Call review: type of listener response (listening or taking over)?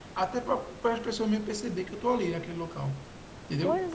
listening